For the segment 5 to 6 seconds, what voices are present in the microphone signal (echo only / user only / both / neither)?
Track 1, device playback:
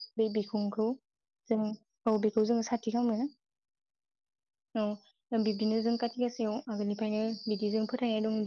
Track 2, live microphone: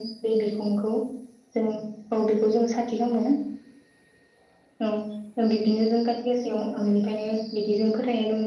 echo only